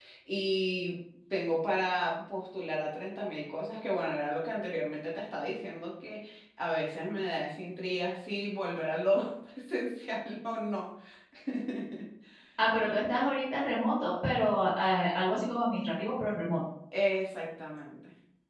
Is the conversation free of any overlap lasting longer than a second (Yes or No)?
Yes